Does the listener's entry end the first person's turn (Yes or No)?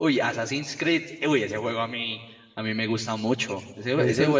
No